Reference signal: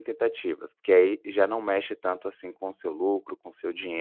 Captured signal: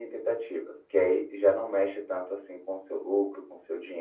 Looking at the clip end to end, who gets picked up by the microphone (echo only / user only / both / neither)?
echo only